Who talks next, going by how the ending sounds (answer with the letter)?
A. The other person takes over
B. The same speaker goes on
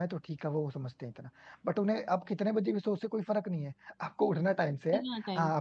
B